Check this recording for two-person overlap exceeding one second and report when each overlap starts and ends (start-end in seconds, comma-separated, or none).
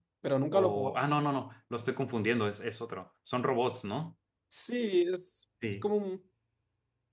none